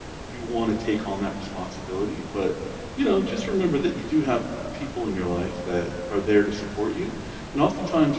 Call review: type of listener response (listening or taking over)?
listening